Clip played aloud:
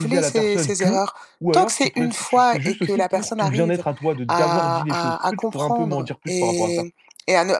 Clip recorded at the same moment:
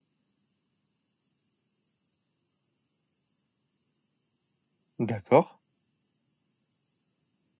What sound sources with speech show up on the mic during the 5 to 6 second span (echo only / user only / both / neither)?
user only